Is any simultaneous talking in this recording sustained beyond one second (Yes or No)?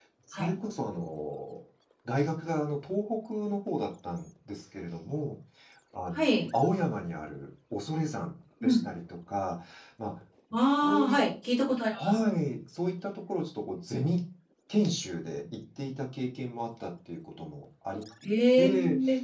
No